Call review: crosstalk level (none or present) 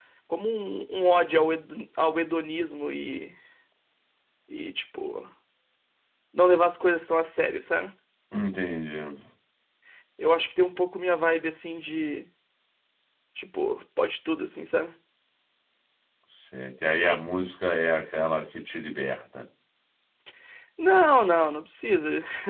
none